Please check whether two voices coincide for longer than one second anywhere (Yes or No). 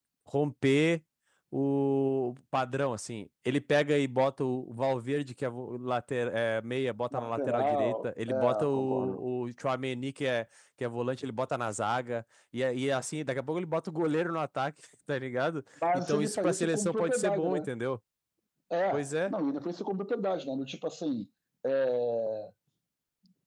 Yes